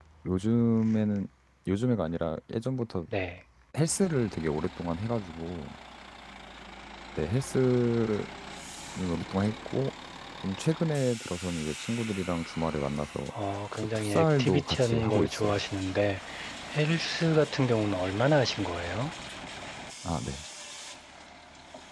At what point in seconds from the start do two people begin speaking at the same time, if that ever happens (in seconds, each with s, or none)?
13.8 s